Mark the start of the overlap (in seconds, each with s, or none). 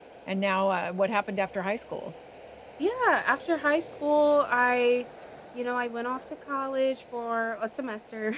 none